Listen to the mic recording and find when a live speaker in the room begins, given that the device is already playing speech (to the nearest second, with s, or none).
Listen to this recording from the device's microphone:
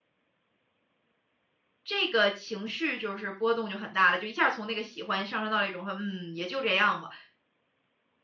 2 s